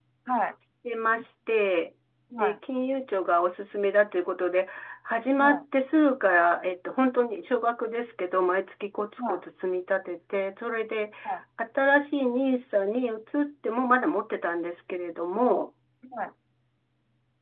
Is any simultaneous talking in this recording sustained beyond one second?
No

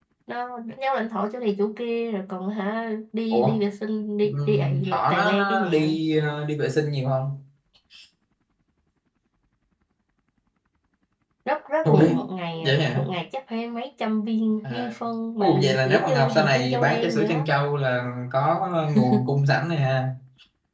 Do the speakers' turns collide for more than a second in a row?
Yes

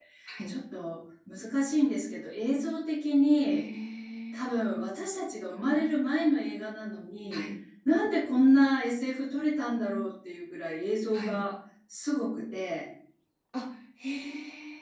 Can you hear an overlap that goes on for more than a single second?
No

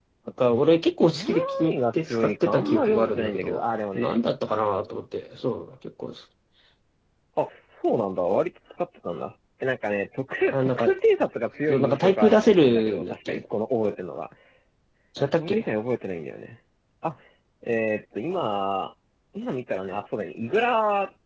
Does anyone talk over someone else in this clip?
Yes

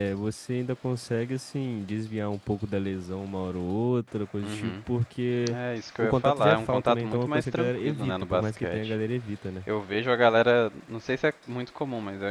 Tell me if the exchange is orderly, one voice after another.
No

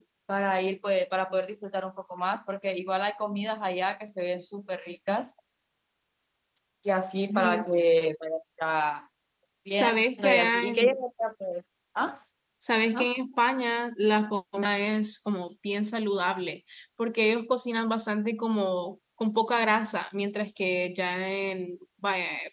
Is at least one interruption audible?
Yes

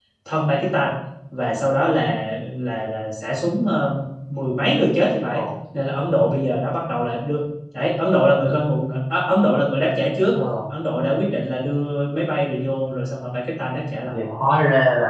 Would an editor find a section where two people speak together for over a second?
No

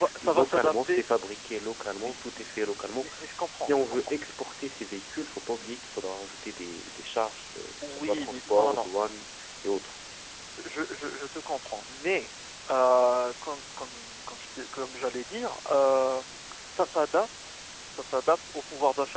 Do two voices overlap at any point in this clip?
Yes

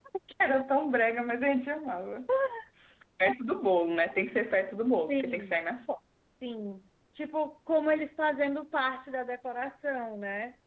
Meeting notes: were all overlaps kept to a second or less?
Yes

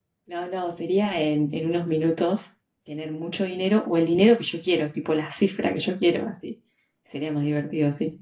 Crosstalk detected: No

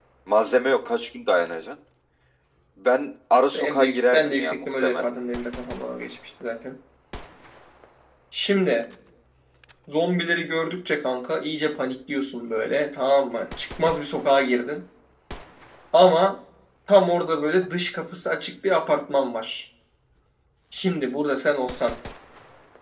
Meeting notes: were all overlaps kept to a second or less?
No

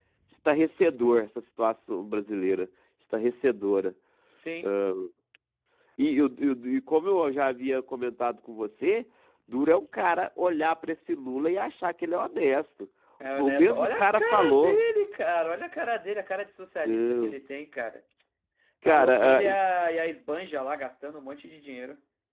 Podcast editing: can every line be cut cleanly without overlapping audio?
No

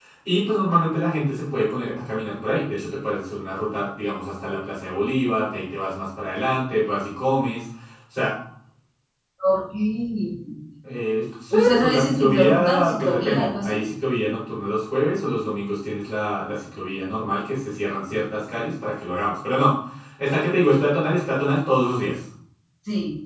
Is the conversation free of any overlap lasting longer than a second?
No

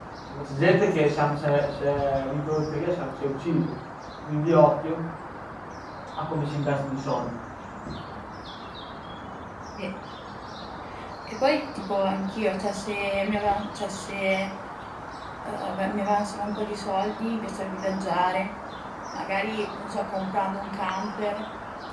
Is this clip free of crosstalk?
Yes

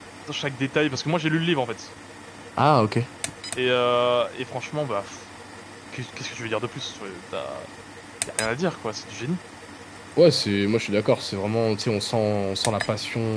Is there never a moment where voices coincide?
Yes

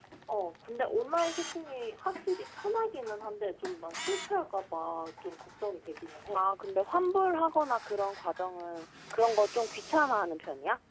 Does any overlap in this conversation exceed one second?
No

